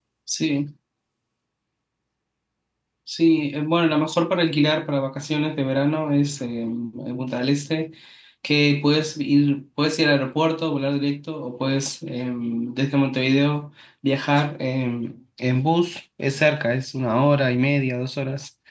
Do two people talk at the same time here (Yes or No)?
No